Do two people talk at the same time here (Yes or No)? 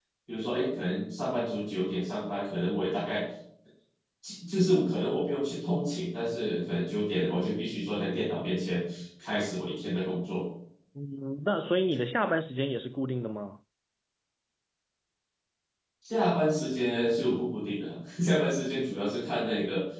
No